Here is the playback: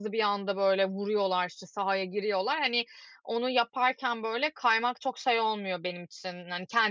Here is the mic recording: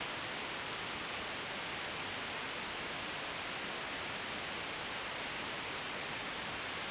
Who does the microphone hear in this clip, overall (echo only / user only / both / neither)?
neither